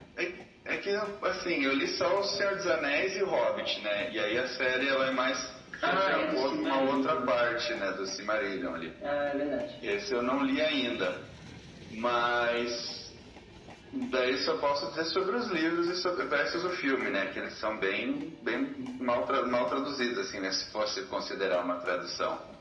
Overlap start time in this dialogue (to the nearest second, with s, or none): 6 s